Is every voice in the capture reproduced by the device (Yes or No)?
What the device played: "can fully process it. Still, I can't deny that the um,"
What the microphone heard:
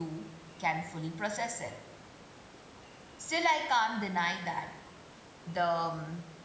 Yes